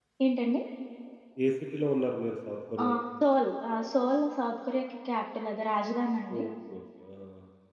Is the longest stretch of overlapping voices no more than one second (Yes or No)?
Yes